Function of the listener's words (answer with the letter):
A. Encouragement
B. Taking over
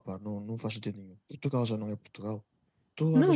A